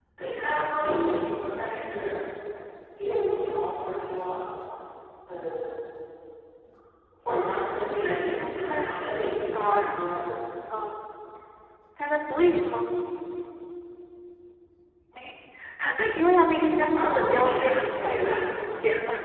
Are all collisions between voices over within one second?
No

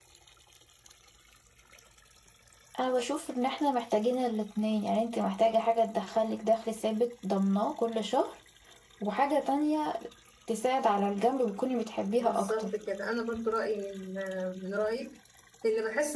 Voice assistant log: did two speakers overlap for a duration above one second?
No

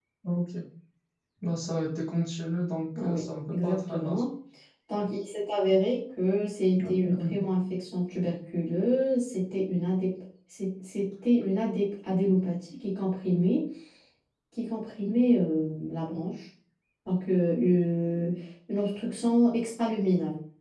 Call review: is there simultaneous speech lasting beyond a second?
Yes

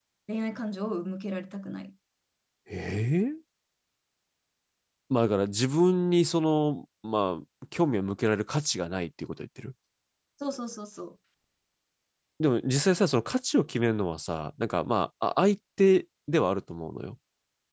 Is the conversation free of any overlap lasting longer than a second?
Yes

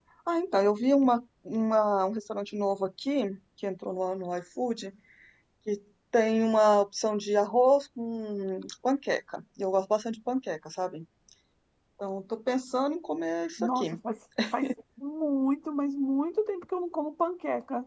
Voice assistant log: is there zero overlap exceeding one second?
Yes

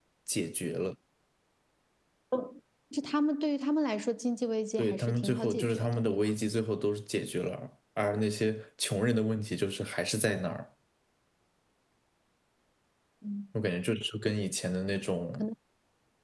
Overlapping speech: Yes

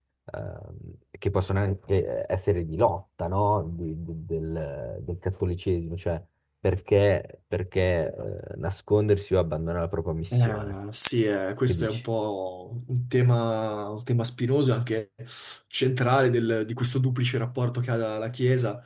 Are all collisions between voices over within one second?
Yes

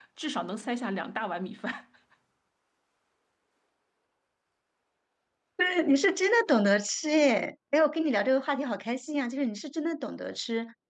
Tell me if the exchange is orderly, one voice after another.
Yes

